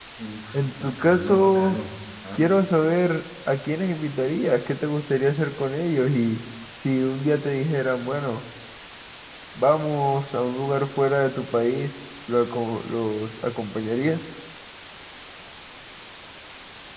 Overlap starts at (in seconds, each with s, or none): 0.5 s